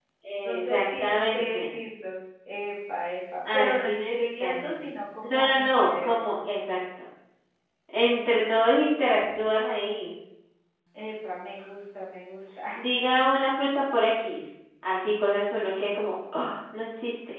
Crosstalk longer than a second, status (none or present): present